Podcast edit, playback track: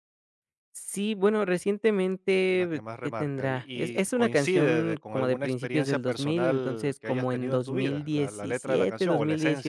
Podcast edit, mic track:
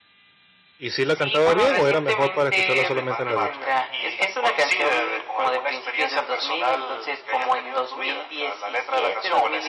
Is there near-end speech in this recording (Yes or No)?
Yes